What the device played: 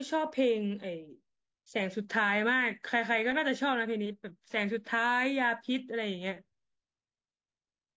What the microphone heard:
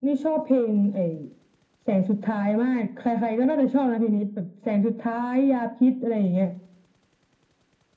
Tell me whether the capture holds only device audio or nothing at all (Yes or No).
Yes